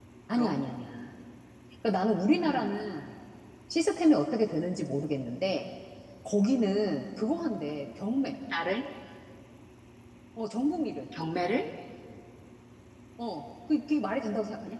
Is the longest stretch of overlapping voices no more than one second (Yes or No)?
Yes